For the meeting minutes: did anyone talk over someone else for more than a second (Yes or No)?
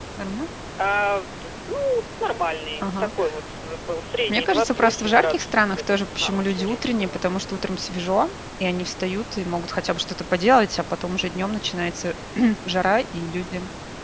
Yes